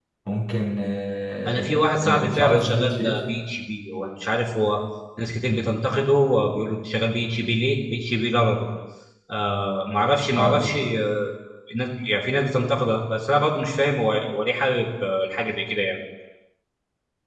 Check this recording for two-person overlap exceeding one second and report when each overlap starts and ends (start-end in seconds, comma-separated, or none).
1.5-3.2